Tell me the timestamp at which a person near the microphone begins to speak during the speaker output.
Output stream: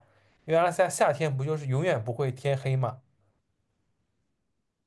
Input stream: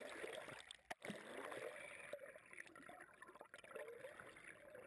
none

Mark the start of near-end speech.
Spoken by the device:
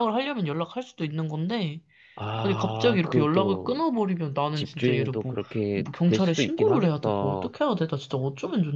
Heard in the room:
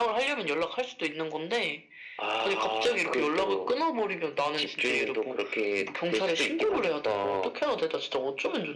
none

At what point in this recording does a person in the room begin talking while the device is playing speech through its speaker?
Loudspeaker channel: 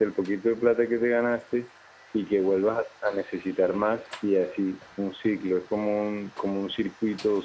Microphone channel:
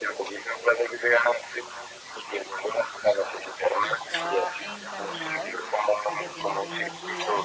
4 s

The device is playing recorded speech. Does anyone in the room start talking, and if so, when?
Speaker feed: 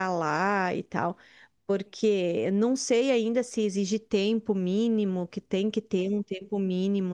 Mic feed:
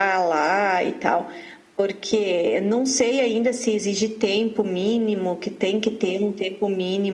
none

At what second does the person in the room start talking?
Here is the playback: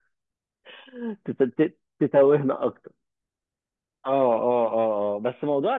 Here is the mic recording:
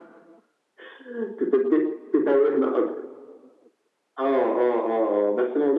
none

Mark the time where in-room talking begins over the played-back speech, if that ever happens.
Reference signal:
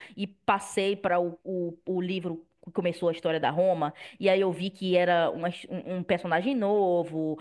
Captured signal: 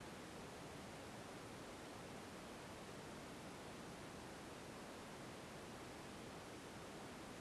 none

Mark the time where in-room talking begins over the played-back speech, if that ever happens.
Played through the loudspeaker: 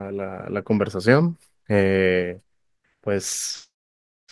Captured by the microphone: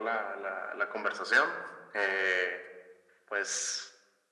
none

